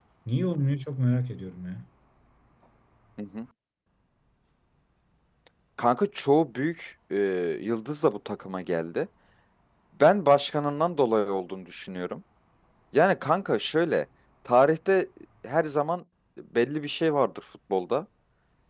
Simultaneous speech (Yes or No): No